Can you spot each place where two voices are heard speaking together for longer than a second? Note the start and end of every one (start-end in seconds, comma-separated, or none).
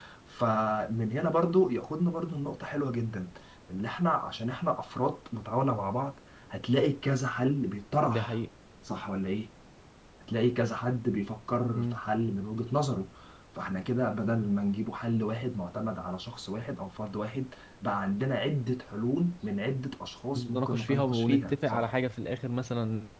20.4-21.9